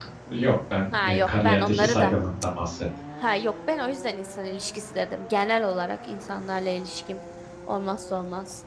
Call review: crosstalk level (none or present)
present